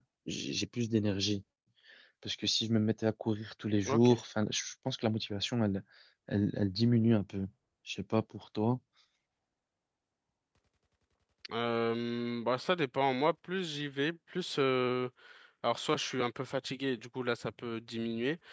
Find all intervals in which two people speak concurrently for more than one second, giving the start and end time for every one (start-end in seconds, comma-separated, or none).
none